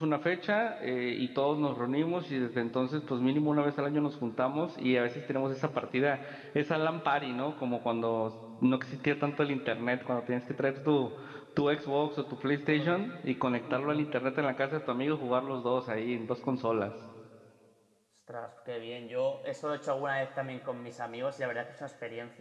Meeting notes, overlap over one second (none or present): none